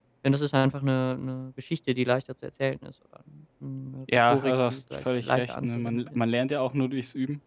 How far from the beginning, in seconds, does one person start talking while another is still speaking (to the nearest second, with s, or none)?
4 s